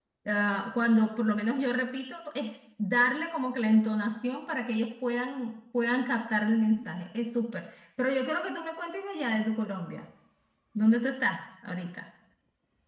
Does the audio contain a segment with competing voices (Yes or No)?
No